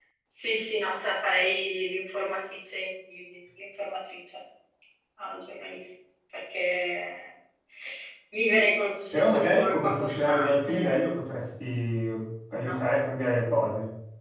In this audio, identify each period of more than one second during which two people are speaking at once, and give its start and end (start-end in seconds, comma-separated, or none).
9.1-11.1